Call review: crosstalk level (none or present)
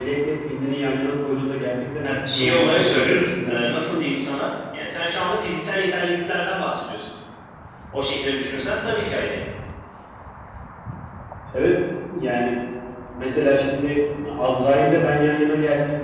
present